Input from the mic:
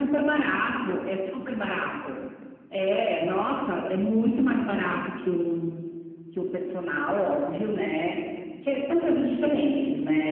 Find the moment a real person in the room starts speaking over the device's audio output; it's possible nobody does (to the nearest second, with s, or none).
none